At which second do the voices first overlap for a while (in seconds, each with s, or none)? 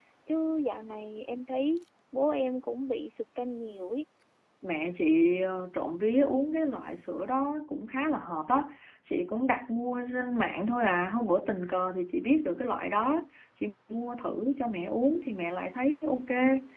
none